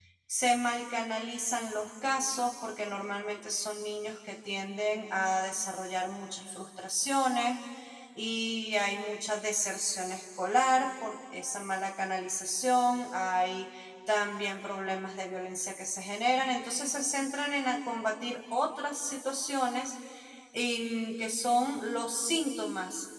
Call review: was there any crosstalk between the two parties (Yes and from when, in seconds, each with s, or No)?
No